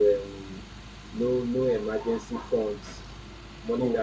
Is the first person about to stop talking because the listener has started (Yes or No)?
No